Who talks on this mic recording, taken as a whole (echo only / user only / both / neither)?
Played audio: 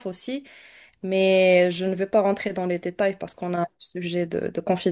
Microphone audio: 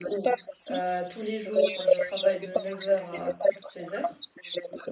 both